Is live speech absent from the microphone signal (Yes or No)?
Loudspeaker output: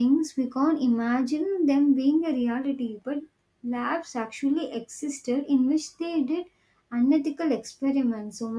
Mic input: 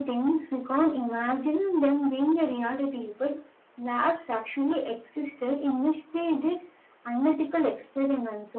Yes